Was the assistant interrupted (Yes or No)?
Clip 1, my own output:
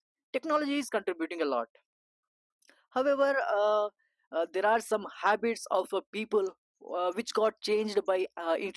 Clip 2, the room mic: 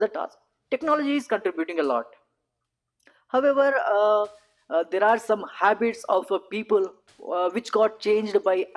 No